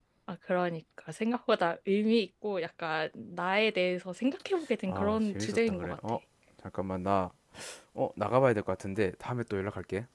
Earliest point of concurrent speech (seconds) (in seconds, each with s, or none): 4.9 s